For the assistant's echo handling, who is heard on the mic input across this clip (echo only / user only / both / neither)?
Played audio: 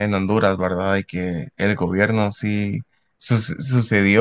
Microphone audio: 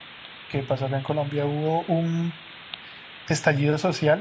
user only